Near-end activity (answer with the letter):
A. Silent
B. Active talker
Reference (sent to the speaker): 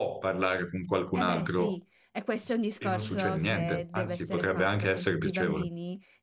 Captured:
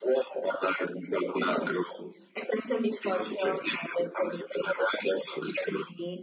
A